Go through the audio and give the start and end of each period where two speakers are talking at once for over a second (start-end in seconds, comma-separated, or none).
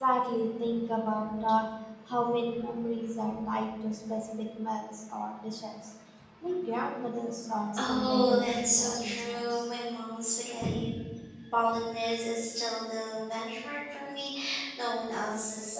7.8-9.7